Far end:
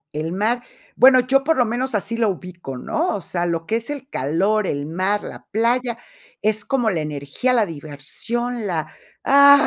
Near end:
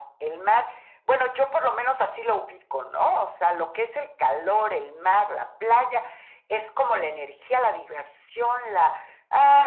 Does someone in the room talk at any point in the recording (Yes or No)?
No